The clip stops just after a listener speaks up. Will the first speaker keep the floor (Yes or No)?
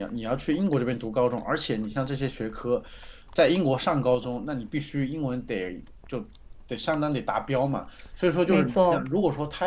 Yes